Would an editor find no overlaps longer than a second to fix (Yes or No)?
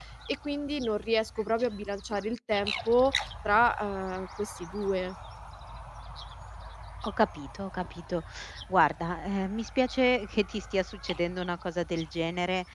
Yes